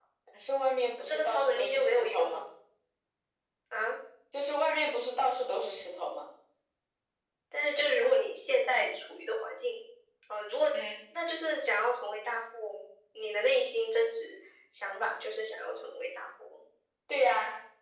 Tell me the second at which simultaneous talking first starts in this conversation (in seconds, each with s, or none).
1.0 s